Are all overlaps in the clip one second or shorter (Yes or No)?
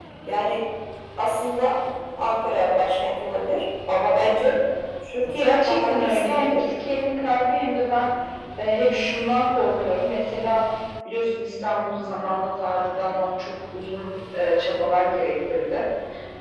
No